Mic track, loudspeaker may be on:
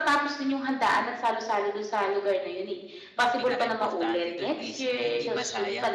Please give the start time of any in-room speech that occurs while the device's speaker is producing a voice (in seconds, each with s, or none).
3.2 s